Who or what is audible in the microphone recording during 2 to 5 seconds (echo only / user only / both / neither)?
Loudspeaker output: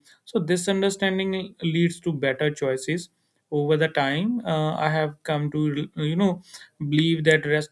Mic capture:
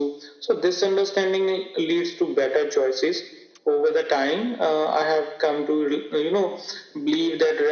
echo only